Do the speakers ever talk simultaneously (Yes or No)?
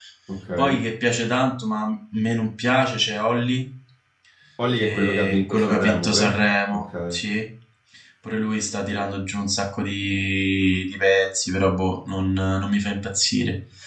Yes